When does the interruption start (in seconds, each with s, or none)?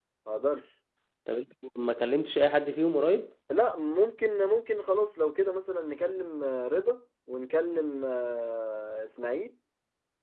none